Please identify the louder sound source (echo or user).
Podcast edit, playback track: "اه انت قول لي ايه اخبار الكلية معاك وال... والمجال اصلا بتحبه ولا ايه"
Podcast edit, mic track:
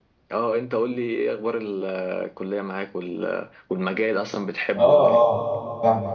user